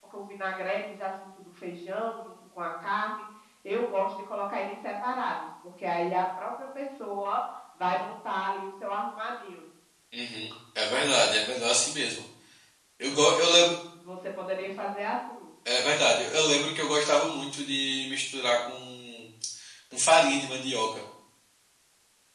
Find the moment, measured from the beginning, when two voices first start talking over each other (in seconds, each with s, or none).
none